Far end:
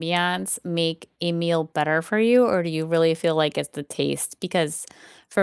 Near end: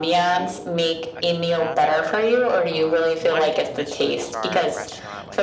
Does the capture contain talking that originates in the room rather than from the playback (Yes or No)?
Yes